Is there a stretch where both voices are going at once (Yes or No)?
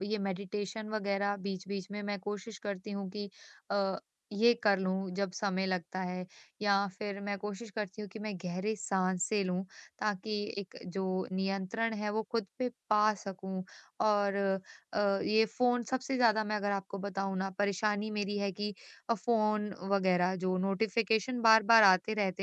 No